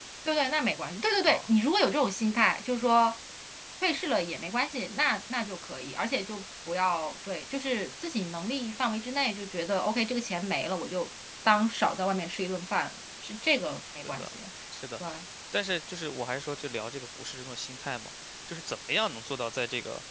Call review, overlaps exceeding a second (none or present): none